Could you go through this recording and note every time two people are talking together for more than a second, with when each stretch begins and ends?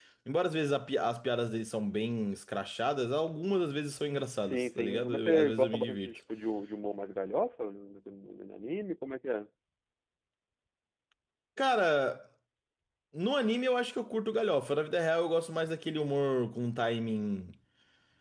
4.4-6.1

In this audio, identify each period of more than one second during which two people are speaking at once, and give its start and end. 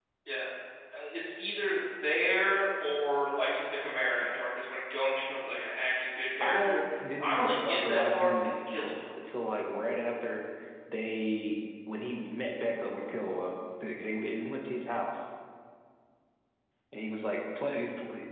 6.4-8.9

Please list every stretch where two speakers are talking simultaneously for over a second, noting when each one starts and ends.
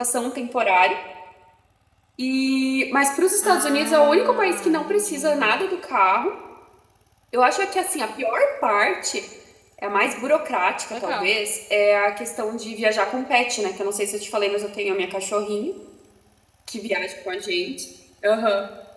3.4-5.6

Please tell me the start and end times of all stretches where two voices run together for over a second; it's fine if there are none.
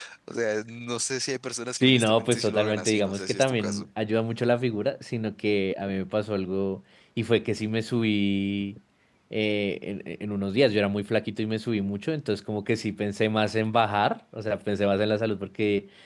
1.8-3.9

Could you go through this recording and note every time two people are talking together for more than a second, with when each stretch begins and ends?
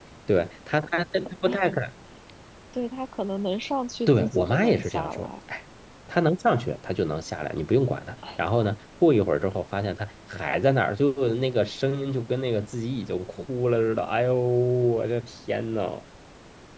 4.1-5.3

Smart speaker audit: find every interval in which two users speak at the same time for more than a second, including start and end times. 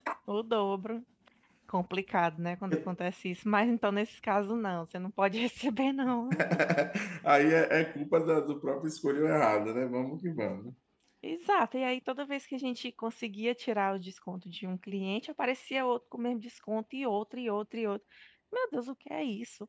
none

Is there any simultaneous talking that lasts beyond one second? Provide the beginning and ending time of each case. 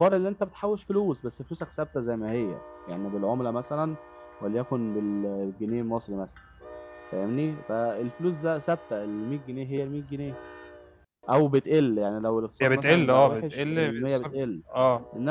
12.6-14.4

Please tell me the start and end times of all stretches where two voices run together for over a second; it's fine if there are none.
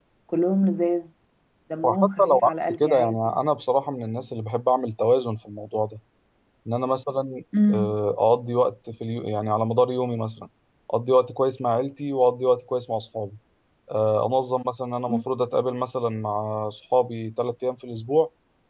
1.8-3.2

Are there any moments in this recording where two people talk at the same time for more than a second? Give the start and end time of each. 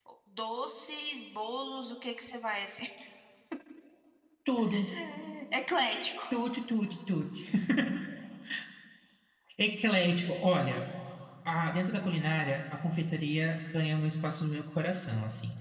none

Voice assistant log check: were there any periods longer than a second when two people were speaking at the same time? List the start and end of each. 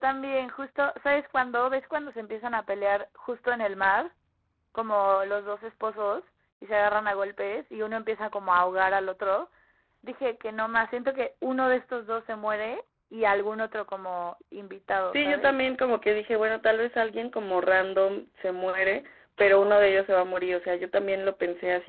none

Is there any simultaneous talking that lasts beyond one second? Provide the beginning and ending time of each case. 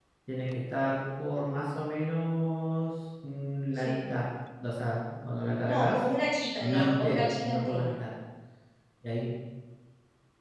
6.6-7.9

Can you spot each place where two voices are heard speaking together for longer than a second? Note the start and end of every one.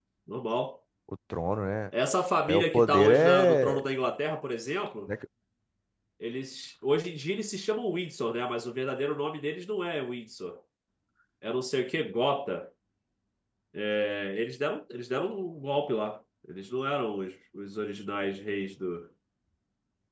2.5-3.8

